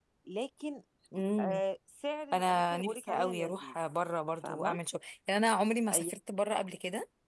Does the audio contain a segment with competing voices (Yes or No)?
Yes